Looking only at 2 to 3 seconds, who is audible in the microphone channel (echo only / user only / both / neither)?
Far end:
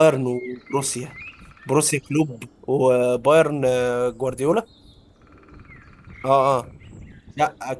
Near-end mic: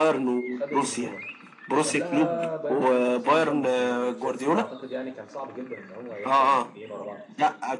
both